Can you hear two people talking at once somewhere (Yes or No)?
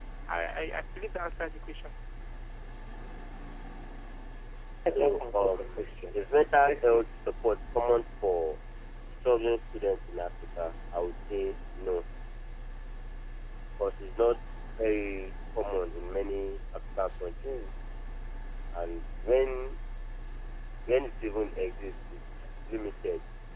Yes